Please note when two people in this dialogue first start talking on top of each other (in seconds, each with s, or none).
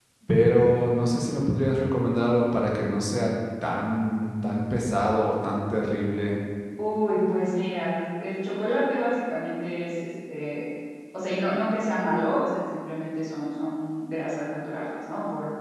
none